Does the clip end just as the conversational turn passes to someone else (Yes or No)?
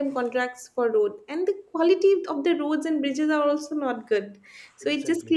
No